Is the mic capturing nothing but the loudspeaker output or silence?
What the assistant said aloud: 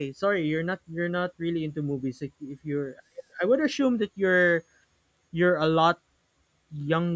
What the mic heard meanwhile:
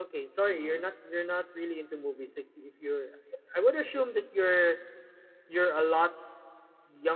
No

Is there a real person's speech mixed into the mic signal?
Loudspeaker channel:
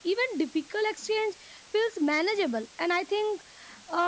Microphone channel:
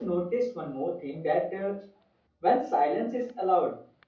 Yes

